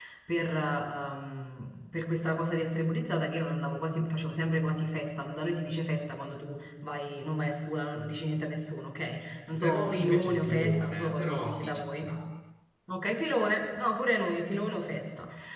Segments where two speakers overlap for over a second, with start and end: 9.5-12.1

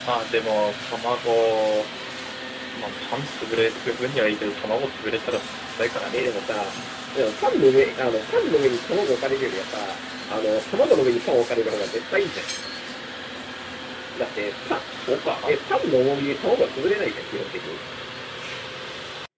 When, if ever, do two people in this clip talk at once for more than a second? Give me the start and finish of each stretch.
none

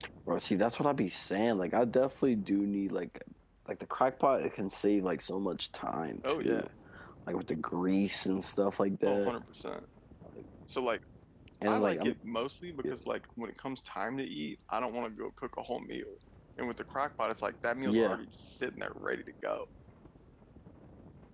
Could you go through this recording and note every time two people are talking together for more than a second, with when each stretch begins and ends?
none

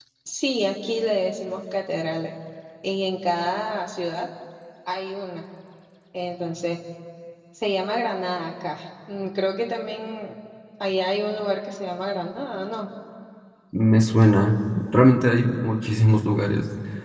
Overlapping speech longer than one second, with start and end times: none

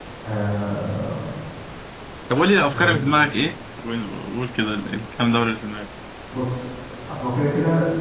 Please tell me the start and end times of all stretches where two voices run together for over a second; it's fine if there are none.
none

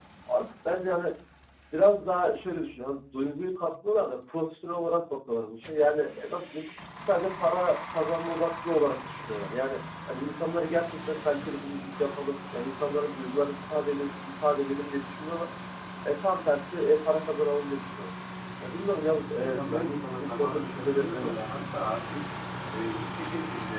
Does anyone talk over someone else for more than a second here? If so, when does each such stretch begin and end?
19.4-21.3

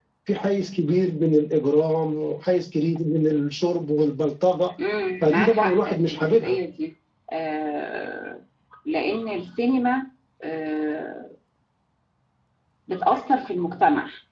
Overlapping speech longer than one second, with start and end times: 5.2-6.6

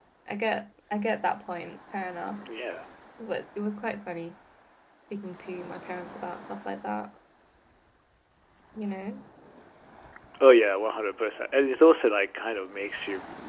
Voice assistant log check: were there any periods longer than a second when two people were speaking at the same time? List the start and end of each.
none

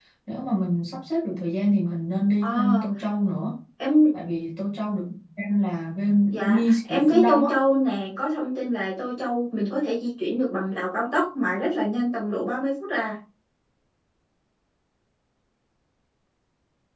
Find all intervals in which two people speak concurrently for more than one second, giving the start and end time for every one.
6.3-7.5

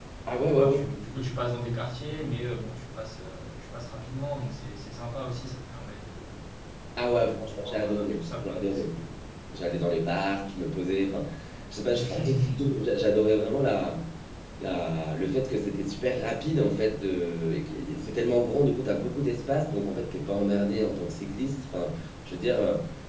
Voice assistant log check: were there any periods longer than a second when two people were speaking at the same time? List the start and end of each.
7.1-8.9

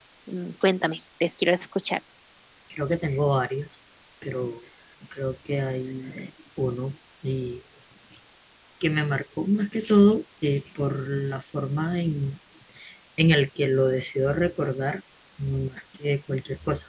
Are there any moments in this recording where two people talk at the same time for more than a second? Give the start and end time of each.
none

